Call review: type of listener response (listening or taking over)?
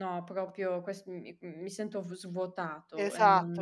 taking over